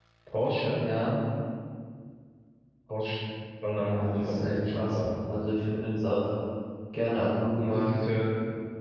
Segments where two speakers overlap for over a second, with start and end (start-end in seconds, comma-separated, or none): 3.8-5.0